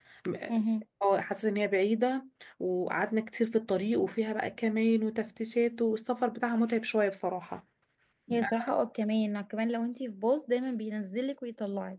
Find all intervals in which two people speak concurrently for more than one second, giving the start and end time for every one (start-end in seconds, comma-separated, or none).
none